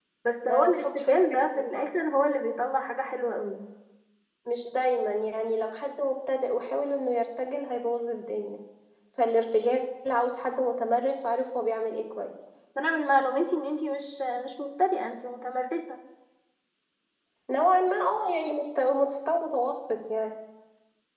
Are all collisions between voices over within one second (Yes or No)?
No